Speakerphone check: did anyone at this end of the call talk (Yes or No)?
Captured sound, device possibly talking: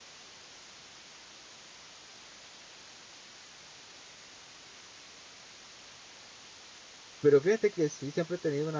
Yes